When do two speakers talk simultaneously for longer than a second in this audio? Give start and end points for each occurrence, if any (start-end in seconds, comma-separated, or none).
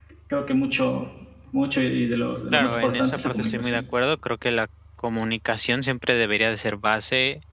2.5-3.8